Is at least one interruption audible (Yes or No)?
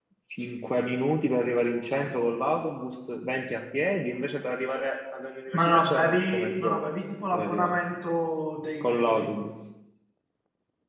Yes